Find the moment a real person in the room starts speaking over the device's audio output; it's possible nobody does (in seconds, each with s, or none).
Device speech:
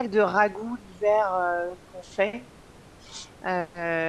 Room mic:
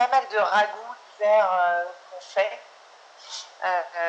none